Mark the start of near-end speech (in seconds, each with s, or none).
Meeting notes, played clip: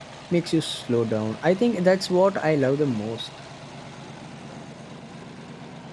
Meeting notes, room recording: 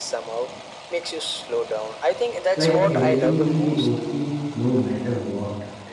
2.6 s